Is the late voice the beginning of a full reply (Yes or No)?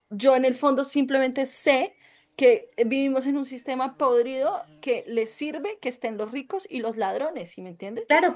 Yes